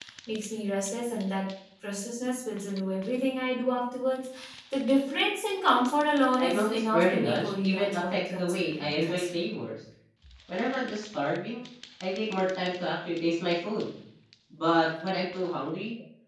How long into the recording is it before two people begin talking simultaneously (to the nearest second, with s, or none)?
6 s